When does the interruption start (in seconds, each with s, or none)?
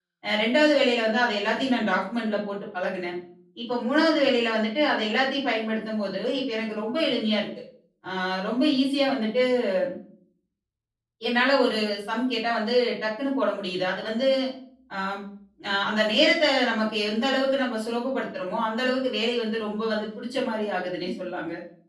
none